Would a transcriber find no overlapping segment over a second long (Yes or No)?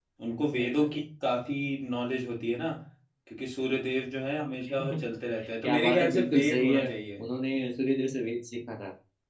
No